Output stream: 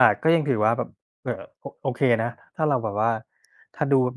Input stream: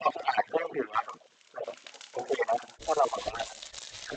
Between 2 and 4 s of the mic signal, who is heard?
echo only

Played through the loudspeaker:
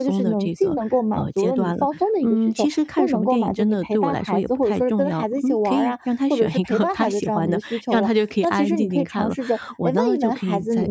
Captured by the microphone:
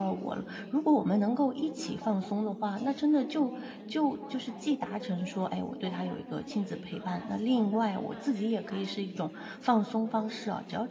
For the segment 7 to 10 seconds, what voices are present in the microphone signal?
both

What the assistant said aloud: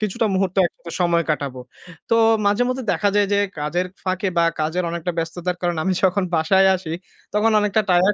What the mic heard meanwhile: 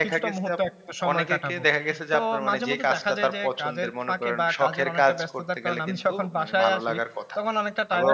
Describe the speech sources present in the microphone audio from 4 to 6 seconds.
both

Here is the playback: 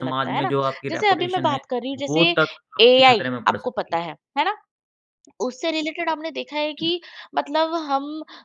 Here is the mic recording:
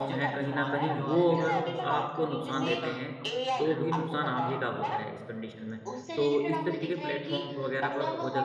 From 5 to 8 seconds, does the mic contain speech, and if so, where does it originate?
both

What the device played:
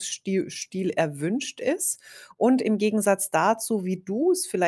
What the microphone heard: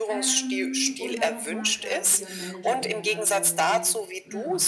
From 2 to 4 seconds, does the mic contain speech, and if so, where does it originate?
both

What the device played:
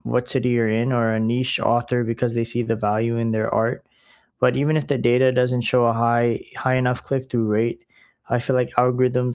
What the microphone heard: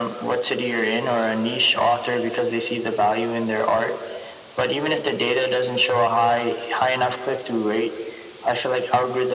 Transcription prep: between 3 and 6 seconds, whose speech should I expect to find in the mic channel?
echo only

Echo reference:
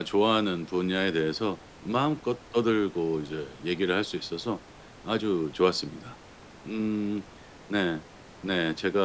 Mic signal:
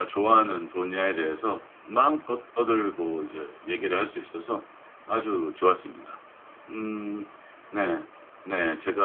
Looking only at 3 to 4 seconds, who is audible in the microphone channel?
echo only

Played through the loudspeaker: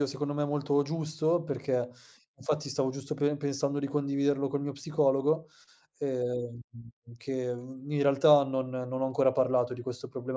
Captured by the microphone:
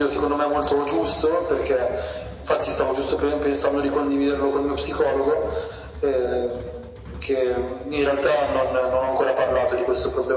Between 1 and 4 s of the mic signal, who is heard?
echo only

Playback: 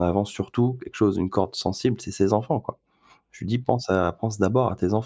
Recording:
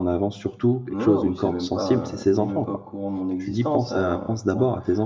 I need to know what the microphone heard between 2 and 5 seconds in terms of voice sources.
both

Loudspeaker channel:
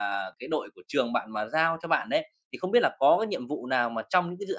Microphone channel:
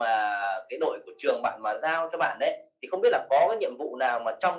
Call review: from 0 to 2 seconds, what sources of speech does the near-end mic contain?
echo only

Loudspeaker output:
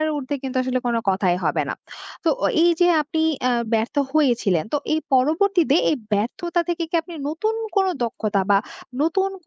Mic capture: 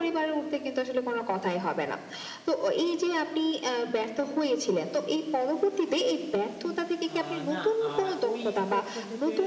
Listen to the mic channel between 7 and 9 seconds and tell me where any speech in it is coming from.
both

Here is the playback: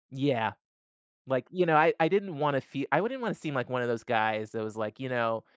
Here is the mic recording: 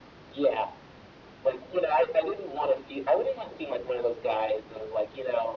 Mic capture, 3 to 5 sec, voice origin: echo only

